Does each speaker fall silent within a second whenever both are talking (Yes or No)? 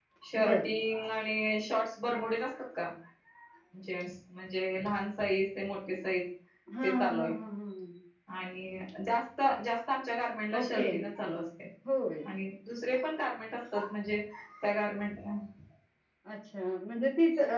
Yes